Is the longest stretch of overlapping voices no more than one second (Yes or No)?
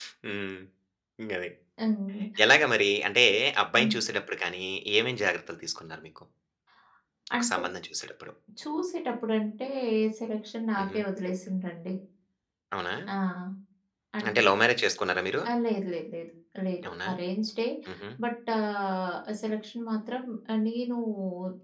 Yes